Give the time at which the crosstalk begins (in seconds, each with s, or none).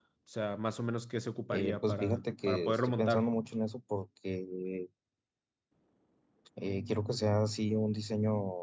1.5 s